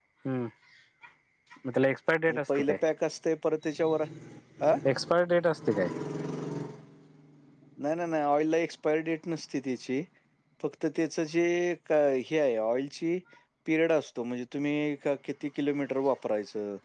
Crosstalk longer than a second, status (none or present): none